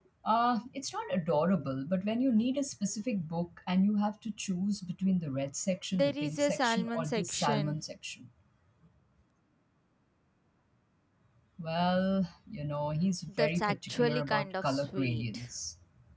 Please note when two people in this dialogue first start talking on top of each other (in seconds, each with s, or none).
5.9 s